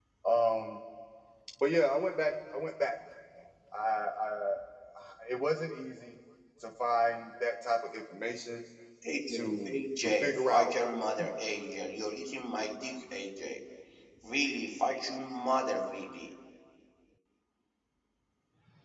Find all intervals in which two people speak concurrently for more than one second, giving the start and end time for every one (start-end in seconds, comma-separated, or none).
9.3-10.8